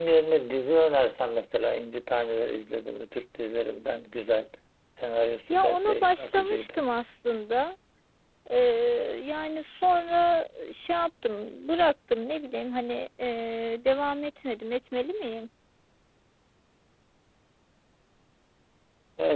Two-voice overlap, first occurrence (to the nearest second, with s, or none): 6 s